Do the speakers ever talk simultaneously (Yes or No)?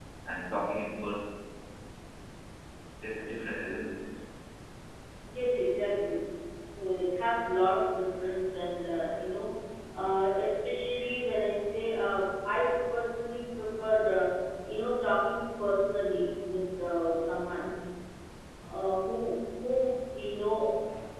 No